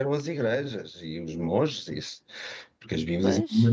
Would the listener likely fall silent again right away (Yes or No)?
Yes